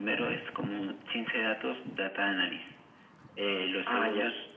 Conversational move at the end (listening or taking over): listening